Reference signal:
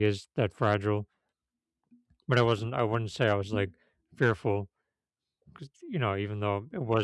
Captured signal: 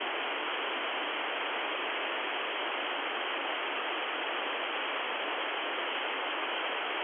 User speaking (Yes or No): No